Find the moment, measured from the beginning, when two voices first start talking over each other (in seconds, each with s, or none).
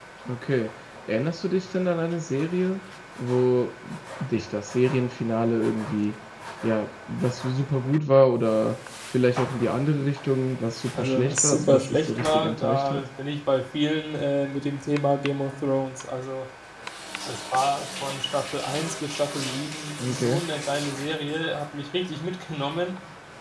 10.9 s